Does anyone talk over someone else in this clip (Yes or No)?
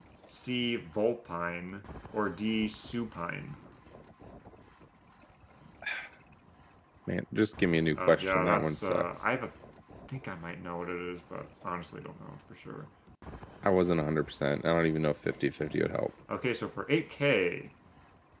Yes